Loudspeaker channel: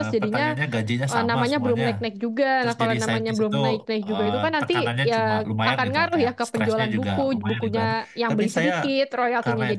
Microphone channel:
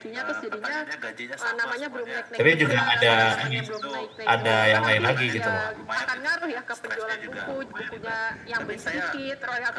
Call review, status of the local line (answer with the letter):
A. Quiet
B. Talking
B